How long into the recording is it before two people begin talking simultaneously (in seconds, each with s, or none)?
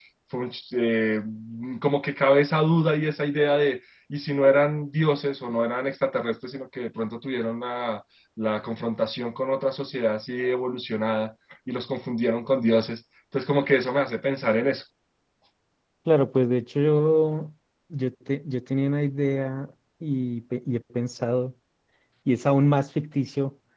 none